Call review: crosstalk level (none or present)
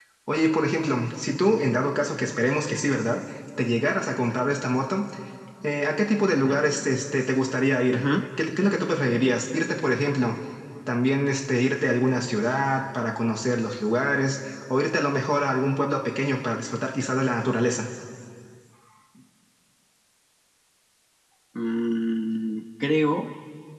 none